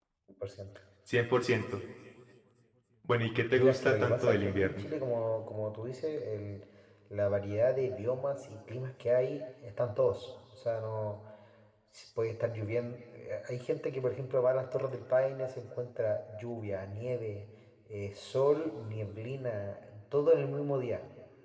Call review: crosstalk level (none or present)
present